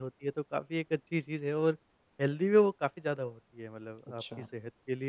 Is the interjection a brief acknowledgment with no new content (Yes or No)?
Yes